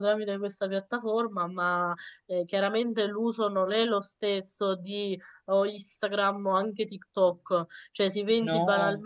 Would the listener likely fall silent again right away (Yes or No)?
Yes